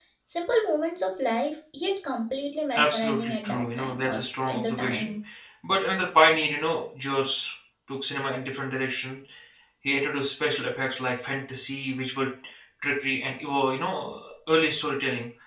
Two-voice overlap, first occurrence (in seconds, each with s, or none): 2.8 s